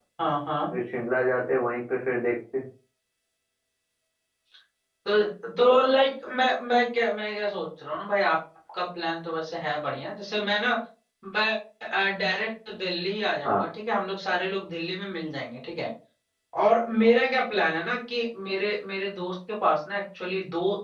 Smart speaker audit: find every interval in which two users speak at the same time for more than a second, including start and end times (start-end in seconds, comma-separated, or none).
none